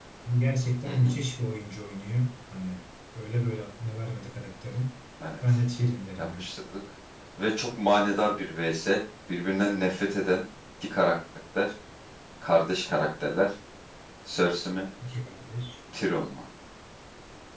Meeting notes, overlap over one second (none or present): none